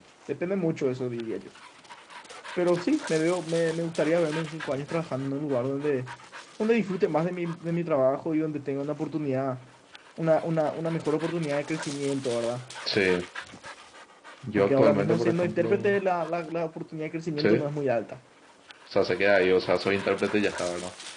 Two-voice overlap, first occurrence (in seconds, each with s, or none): 14.6 s